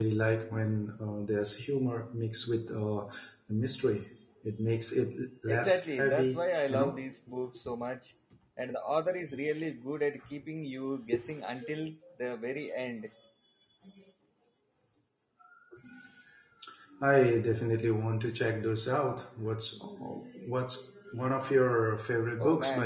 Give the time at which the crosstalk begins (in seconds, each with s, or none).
5.5 s